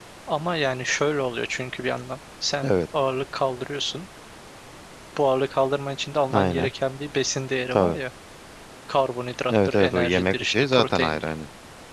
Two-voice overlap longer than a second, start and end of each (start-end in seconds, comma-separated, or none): 9.5-11.3